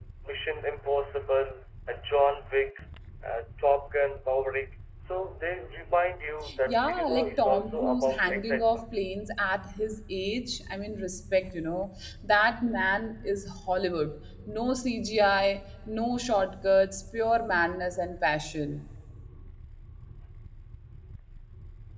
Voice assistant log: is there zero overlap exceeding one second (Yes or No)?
No